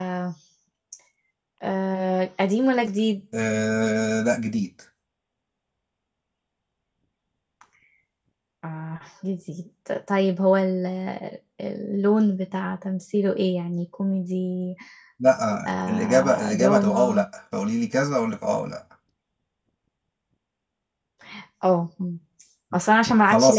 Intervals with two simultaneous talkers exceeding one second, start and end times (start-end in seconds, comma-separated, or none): 15.7-17.2